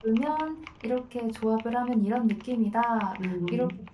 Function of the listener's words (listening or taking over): listening